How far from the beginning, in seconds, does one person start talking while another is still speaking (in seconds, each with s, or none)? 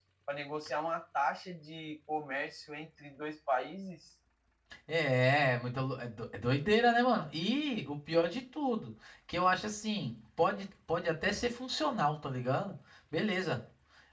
none